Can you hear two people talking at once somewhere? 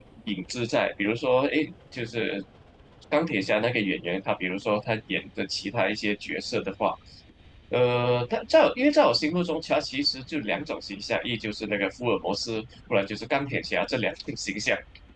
No

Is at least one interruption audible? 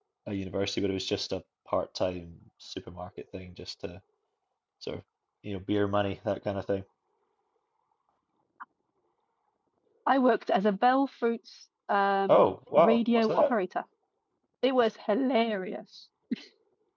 Yes, from 12.3 s

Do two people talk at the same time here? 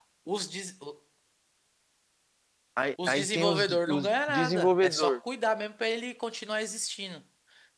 Yes, from 3.1 s

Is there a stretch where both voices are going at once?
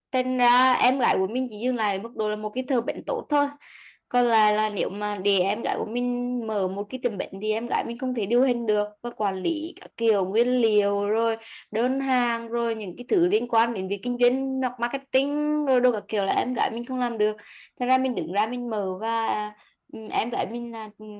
No

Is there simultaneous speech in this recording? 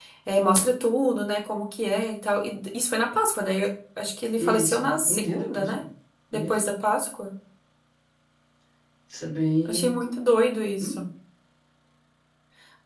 Yes, from 4.4 s

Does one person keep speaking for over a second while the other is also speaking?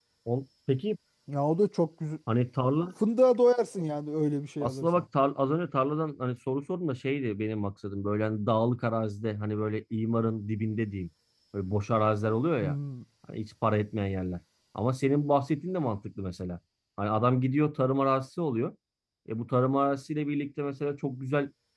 No

